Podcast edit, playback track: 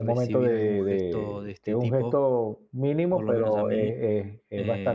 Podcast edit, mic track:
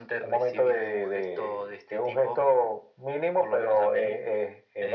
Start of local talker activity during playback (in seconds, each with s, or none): none